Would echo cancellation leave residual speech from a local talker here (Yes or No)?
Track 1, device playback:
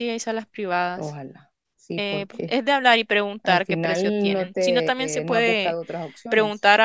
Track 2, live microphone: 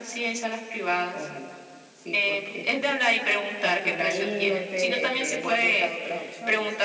No